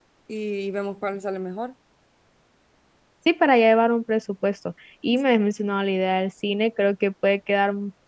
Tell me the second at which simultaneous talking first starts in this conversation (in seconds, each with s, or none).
none